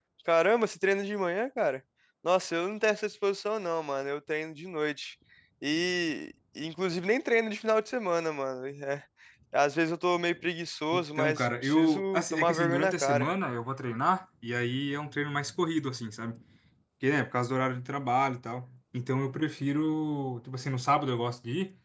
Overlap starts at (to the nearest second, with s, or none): 11 s